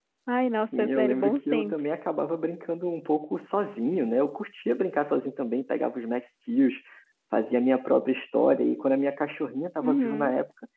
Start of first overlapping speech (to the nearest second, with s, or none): 1 s